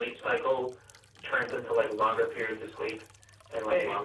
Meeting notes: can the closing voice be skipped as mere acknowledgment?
Yes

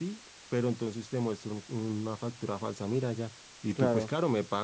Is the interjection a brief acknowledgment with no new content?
Yes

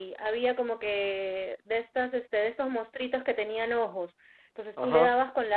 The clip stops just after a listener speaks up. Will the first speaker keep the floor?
Yes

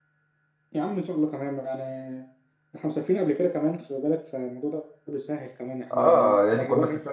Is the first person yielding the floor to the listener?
Yes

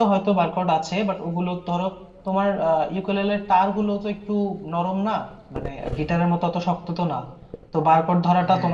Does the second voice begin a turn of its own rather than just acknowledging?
No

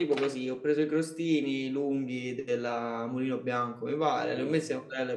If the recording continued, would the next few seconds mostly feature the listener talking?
No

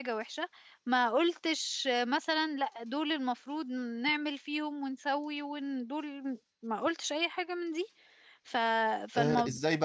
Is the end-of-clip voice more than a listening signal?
Yes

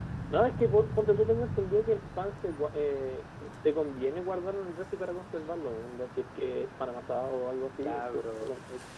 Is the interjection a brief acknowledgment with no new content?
No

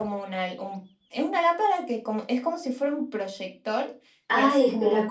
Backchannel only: No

